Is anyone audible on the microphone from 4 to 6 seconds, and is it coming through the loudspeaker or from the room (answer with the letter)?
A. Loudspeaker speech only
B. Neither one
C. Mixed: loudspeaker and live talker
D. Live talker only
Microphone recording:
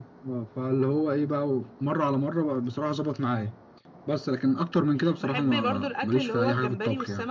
A